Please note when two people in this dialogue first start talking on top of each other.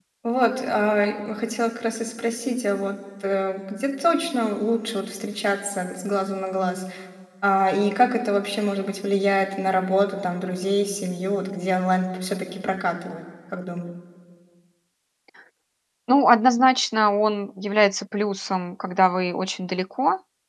none

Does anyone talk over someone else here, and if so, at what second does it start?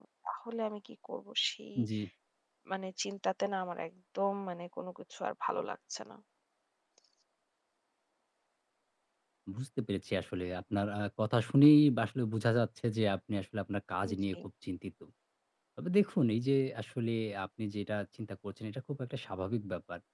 none

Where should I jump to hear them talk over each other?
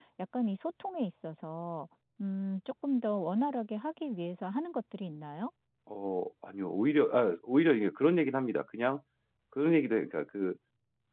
none

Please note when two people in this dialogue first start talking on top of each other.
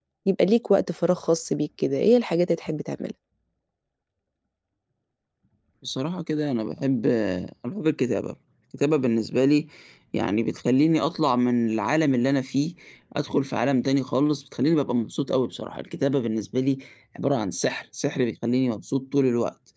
none

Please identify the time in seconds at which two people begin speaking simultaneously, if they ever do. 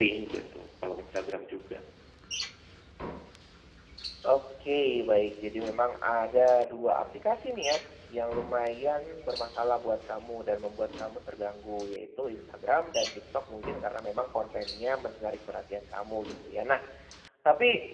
none

